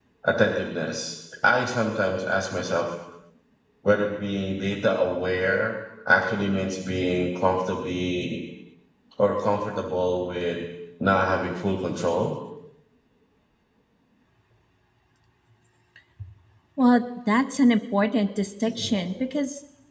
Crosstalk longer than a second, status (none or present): none